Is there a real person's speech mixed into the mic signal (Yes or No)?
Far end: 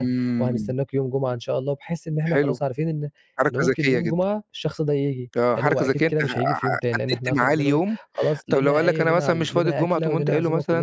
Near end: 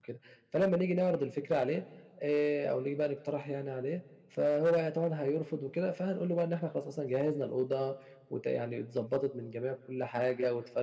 Yes